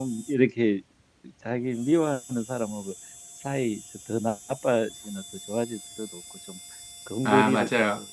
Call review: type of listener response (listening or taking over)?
listening